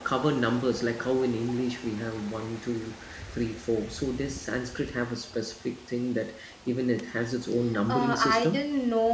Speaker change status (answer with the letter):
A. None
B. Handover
B